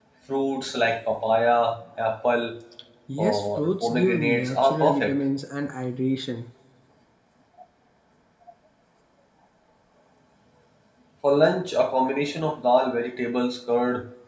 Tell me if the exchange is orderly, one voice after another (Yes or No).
No